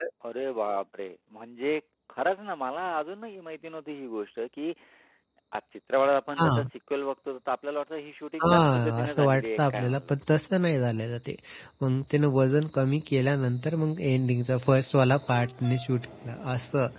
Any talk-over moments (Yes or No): Yes